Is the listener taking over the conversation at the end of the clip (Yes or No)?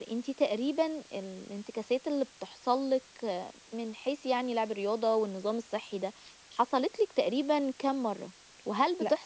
No